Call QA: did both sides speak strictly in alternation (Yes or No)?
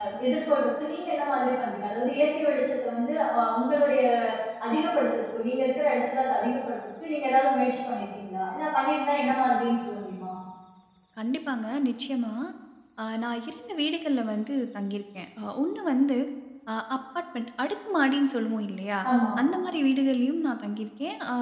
Yes